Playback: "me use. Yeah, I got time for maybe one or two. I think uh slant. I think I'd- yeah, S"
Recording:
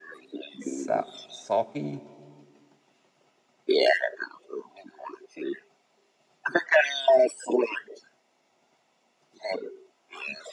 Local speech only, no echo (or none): Sa sulky.